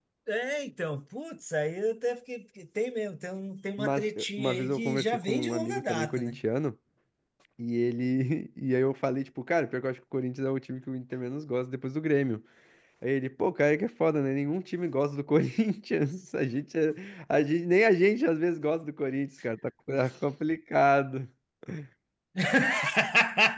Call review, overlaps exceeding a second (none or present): present